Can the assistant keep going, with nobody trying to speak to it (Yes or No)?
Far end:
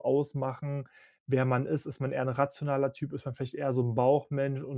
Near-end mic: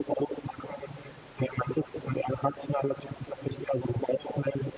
Yes